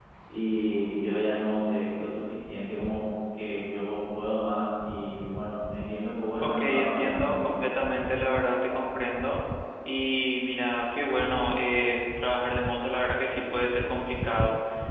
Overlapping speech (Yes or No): Yes